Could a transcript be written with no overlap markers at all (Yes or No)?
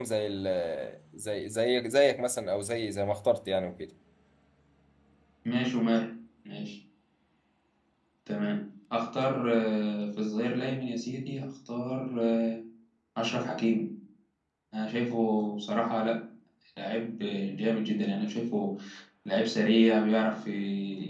Yes